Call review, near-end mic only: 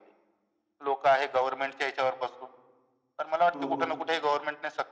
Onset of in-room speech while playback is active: 3.5 s

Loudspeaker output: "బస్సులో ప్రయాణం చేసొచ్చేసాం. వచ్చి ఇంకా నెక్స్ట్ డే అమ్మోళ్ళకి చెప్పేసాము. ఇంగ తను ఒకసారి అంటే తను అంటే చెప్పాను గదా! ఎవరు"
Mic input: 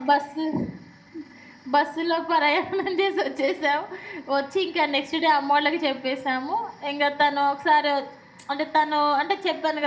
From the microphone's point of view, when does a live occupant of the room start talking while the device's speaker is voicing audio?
none

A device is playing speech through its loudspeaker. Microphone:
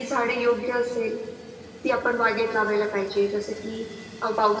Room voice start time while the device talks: none

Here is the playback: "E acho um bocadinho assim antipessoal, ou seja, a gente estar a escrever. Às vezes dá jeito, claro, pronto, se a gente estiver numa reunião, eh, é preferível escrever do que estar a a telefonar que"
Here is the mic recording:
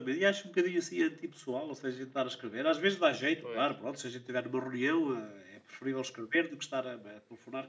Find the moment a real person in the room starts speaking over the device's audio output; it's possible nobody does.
3.4 s

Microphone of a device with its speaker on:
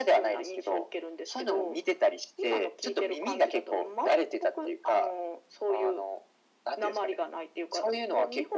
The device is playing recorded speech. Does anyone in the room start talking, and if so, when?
none

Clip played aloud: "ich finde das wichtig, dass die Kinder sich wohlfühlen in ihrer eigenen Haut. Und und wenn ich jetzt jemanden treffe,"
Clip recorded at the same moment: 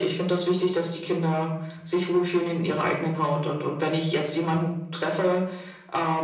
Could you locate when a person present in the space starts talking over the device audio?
none

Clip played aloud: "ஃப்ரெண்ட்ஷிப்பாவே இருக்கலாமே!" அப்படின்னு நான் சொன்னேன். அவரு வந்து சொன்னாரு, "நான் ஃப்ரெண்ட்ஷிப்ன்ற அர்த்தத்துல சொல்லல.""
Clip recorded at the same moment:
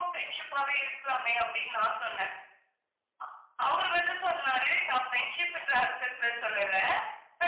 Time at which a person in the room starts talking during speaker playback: none

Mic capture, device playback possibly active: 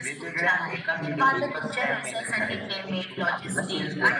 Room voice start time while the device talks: none

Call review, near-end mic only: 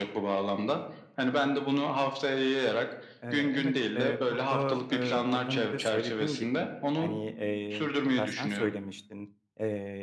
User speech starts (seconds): 3.2 s

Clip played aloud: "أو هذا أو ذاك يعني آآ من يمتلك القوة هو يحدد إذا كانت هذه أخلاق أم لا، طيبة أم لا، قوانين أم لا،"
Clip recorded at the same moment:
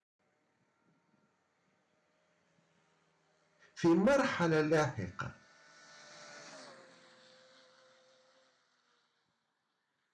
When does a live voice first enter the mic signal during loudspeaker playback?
3.7 s

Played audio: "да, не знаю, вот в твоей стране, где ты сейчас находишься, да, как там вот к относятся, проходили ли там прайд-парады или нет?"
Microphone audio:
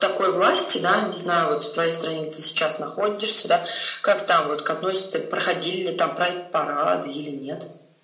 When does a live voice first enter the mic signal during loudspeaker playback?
none

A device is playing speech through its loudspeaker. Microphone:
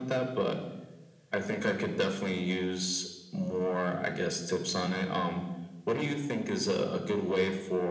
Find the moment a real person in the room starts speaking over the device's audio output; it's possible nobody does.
none

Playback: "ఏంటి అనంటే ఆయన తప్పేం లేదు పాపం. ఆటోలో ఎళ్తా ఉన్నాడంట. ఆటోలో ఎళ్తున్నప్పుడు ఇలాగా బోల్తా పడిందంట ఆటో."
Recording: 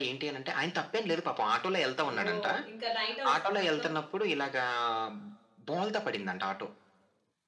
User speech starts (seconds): 2.1 s

